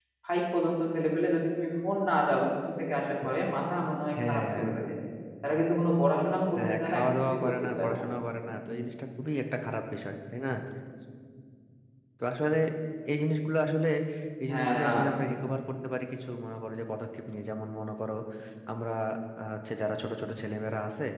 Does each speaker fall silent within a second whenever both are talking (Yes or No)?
No